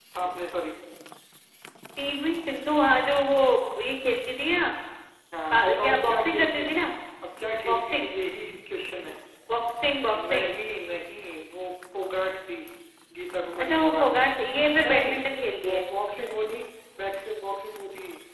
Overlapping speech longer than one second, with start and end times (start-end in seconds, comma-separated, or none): 5.5-6.8